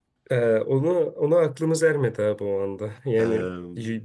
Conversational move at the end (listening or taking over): listening